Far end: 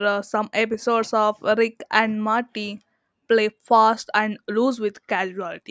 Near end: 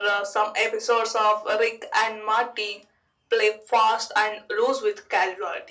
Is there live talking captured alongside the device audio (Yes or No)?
No